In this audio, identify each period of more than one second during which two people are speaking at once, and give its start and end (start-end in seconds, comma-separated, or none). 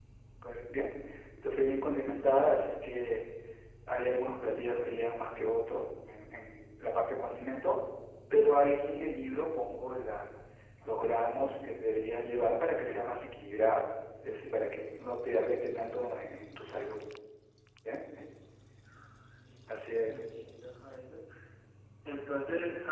none